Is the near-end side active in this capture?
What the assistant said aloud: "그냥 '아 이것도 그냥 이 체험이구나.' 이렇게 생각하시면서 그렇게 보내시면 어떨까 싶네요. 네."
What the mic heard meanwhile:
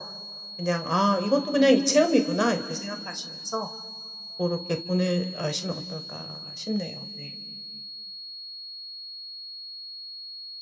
No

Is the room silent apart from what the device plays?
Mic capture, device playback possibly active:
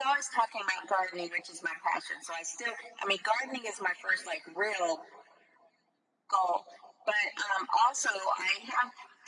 Yes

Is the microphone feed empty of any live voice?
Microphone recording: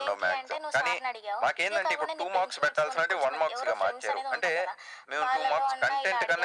Yes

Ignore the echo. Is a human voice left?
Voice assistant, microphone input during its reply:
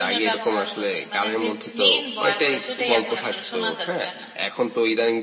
Yes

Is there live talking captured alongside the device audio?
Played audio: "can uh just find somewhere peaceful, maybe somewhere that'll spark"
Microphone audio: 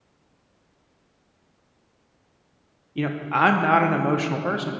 Yes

